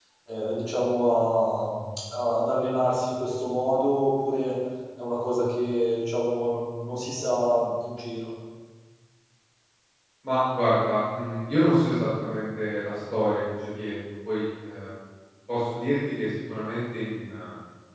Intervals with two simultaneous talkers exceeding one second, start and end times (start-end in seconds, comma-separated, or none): none